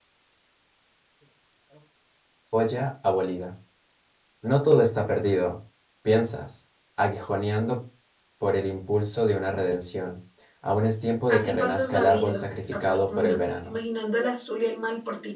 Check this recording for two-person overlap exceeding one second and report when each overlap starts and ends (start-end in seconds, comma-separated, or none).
11.3-13.7